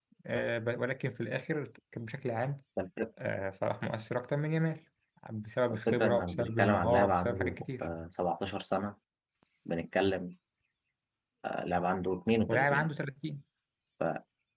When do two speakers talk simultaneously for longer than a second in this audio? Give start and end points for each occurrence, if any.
5.9-7.9

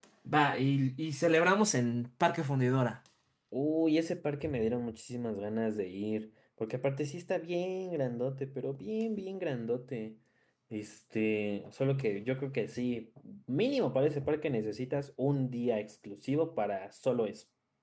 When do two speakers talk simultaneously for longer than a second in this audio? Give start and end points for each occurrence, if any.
none

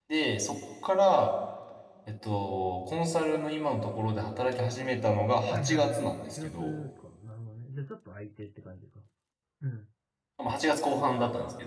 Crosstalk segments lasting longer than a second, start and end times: 5.5-6.7

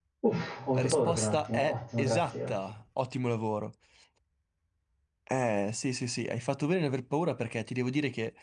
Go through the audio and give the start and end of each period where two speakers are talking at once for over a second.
0.7-2.5

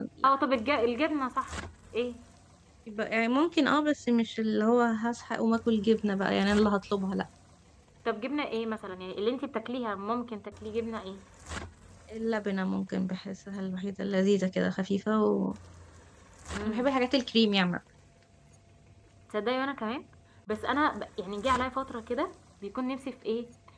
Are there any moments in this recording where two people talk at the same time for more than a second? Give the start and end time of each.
none

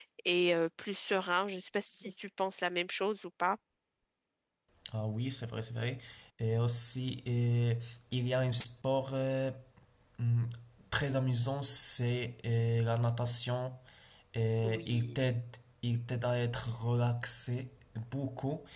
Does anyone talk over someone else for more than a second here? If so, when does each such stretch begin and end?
none

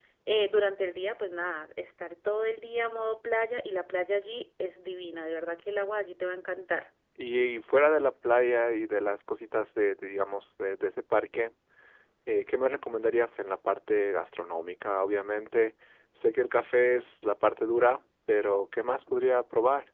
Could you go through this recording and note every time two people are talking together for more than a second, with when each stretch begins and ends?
none

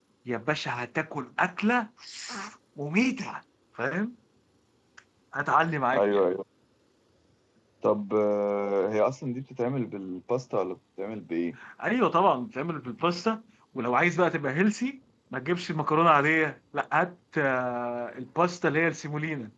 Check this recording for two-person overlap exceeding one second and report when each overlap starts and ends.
none

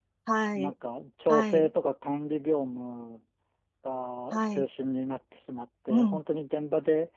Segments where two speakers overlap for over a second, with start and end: none

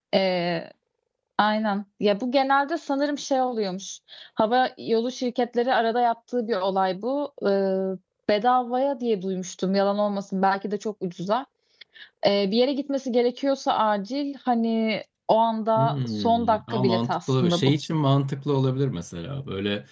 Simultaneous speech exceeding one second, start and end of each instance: 15.8-17.7

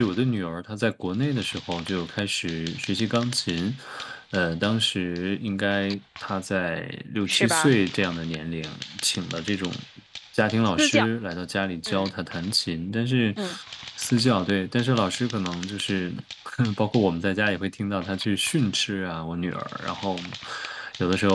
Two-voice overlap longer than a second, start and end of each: none

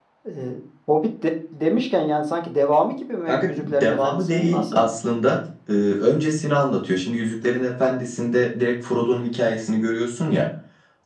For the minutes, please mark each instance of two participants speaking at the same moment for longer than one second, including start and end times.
3.3-4.8

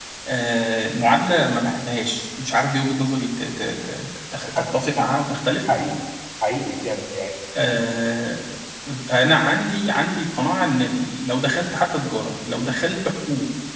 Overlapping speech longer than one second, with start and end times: none

